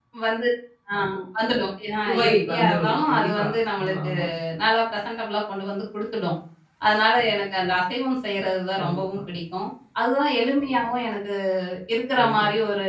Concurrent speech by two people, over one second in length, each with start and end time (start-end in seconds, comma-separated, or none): 2.1-3.4